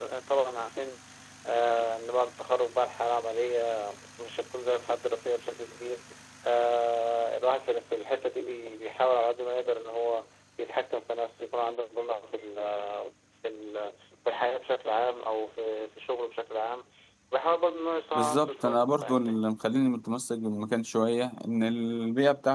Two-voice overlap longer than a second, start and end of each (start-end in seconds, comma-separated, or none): 18.1-19.4